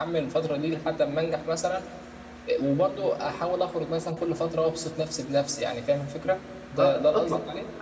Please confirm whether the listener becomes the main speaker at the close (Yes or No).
Yes